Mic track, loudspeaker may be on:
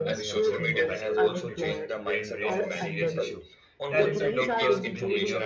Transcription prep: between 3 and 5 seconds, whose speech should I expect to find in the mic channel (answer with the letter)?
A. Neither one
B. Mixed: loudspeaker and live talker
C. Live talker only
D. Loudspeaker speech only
B